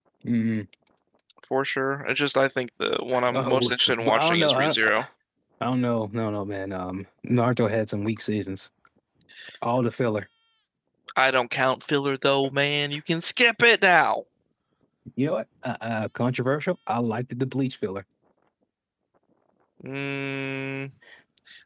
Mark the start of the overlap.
3 s

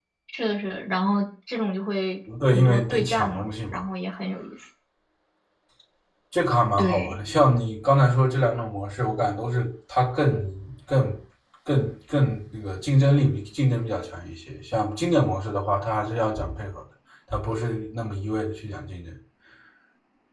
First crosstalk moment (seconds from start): 2 s

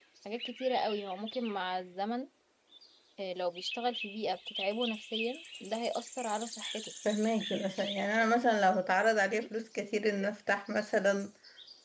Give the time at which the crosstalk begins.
none

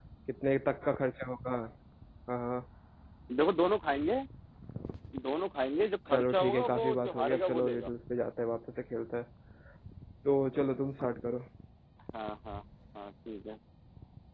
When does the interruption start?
6 s

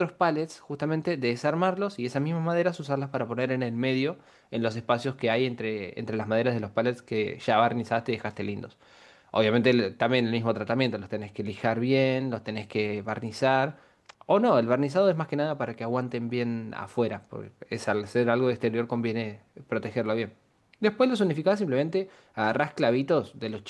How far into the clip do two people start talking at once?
none

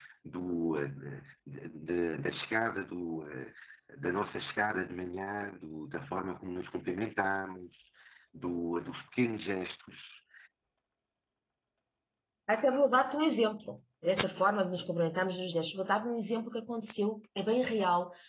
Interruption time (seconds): none

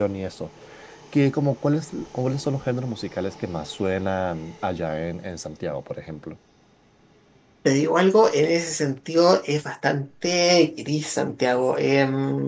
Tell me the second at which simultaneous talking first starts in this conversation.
none

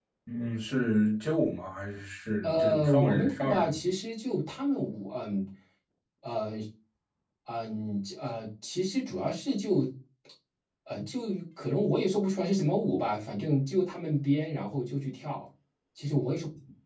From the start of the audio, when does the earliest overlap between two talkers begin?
2 s

